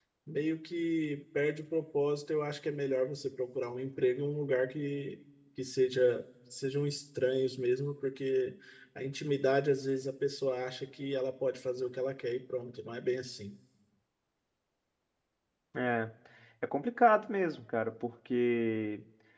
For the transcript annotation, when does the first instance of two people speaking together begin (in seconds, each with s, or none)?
none